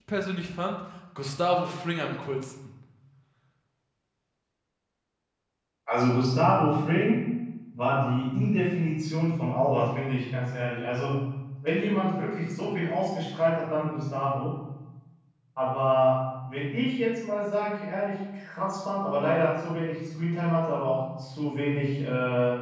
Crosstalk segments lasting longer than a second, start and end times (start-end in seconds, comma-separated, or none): none